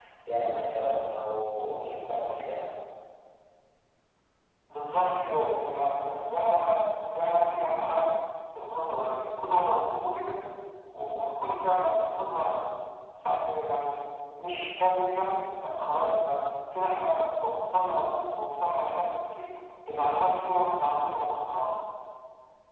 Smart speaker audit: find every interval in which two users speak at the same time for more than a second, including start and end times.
none

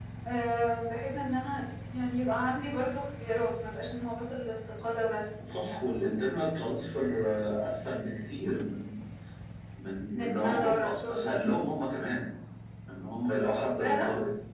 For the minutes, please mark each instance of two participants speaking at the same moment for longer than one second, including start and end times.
10.1-11.7

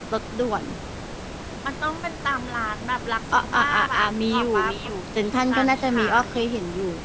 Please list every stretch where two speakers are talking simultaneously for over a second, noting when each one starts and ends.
3.3-6.3

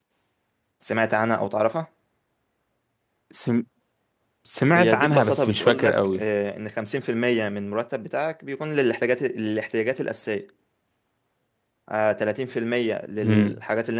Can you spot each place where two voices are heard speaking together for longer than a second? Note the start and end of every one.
4.7-6.2

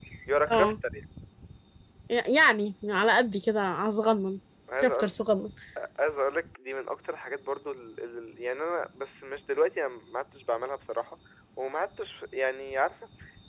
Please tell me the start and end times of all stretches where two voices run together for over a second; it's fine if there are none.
none

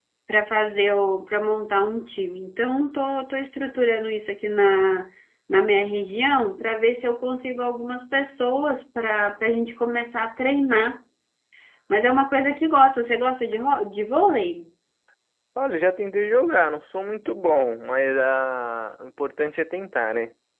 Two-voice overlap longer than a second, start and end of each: none

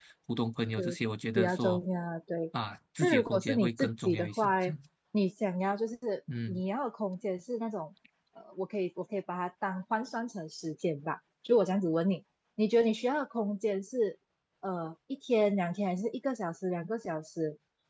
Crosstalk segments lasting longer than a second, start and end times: 3.0-4.5

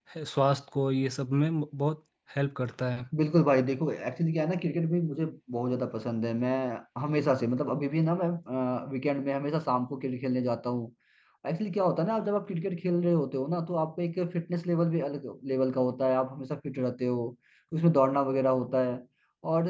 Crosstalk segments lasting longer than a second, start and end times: none

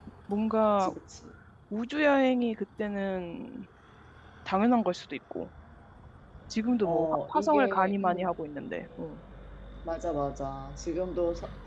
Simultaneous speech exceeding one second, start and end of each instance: 6.8-8.3

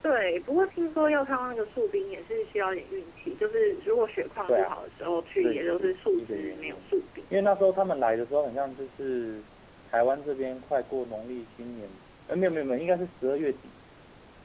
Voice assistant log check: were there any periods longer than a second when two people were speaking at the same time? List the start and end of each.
5.4-6.8

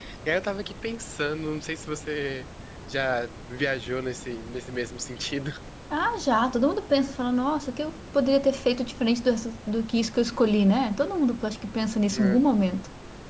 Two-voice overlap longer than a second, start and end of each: none

